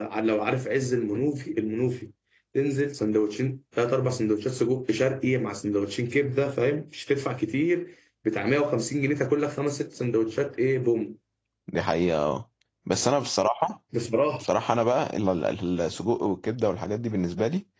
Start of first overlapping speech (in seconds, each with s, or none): none